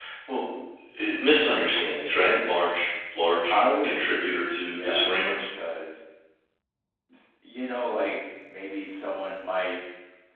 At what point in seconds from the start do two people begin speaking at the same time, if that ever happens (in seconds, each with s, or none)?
3.5 s